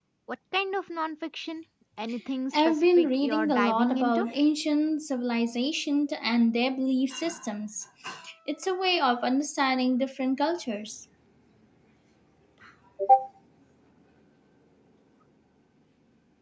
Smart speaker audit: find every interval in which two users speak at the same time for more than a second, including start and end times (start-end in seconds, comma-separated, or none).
2.6-4.3